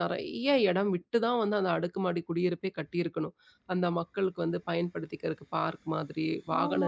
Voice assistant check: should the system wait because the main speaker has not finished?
No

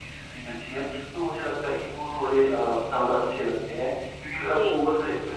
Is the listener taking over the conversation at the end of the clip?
No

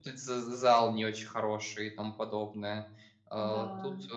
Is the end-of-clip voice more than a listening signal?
No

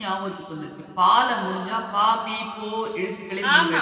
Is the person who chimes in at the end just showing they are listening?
No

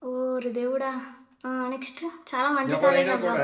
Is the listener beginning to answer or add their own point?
No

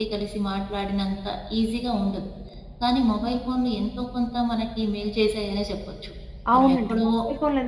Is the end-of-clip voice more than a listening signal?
Yes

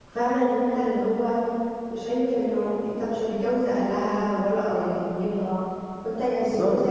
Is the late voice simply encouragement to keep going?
Yes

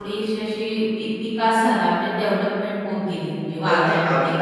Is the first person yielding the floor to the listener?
Yes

